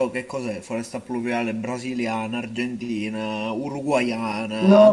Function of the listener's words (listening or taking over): taking over